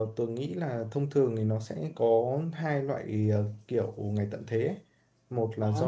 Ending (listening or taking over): listening